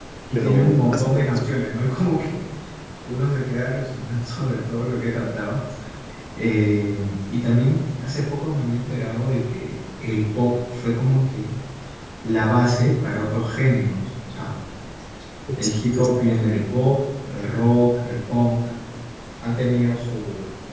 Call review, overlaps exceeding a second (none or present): present